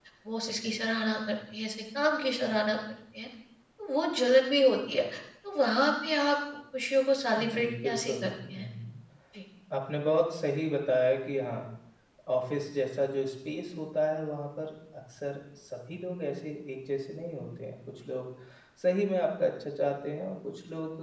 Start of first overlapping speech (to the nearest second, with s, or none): 7 s